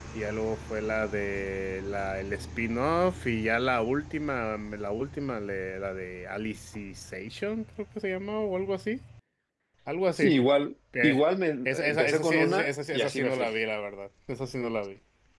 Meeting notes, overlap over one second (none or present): present